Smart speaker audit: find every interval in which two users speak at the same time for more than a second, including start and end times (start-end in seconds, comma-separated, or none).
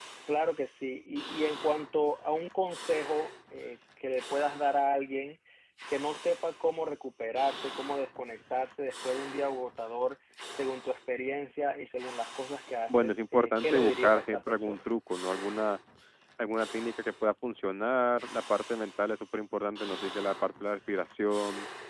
12.9-14.8